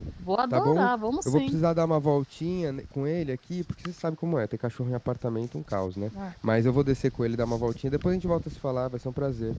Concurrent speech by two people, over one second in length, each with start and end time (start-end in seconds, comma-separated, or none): none